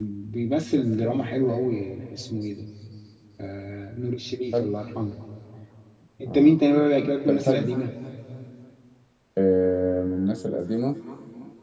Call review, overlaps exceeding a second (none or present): none